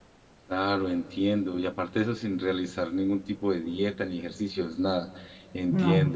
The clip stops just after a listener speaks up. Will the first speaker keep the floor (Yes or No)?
Yes